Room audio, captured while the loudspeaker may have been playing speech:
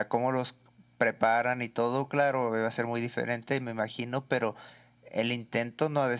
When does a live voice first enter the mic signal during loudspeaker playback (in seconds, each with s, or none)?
none